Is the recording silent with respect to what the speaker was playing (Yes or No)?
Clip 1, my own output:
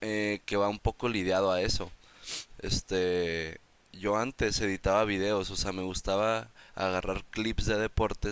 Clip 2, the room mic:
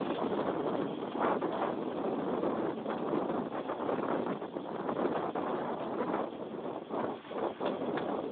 Yes